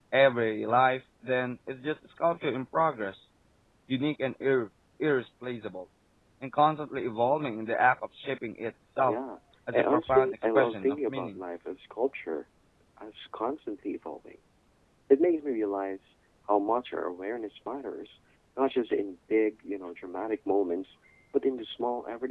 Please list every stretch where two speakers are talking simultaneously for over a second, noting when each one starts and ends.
9.7-11.4

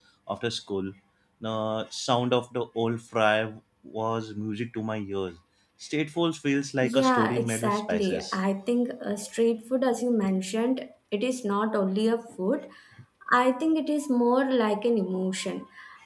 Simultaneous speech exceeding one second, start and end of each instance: 6.8-8.4

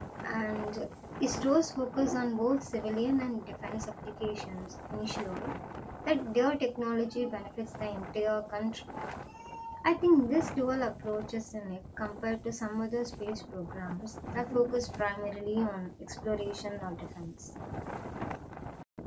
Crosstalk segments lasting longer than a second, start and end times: none

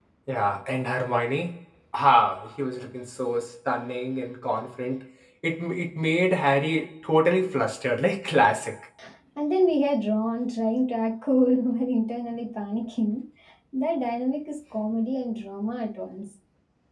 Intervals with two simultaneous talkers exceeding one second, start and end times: none

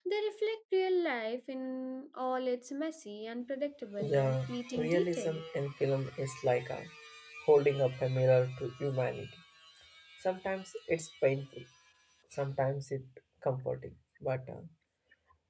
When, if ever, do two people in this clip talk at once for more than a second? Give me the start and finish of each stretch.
4.0-5.4

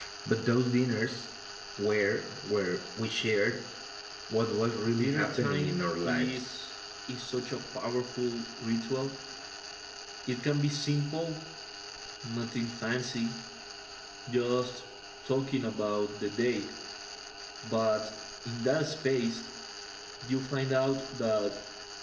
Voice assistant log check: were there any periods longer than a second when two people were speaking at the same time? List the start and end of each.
4.9-6.4

